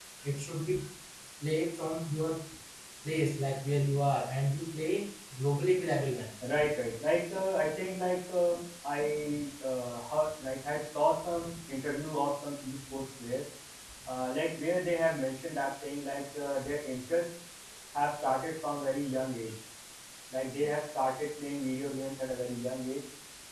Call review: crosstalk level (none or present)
none